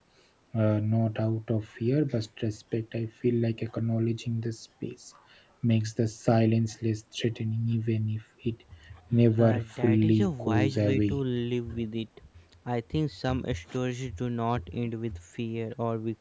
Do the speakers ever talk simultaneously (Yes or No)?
Yes